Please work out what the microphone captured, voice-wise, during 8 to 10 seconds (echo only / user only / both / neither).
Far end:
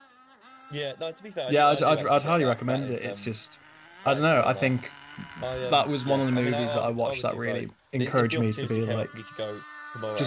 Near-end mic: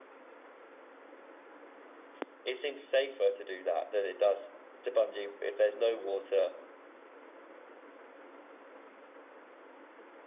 neither